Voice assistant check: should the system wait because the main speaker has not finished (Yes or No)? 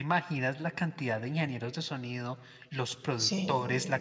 Yes